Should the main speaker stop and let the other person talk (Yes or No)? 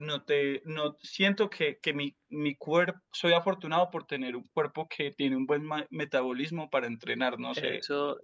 Yes